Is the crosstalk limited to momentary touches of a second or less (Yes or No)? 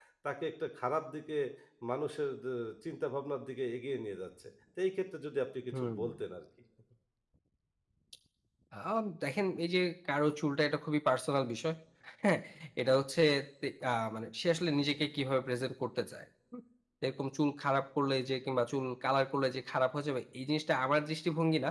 Yes